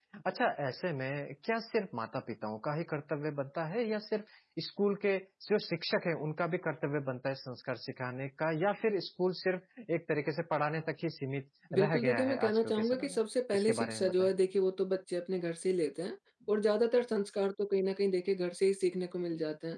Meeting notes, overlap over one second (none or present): present